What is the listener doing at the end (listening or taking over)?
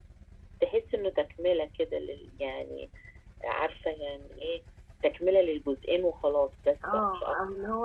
taking over